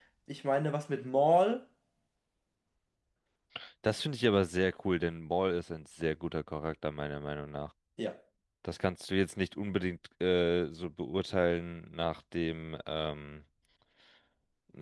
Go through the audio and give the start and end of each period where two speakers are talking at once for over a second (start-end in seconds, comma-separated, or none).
none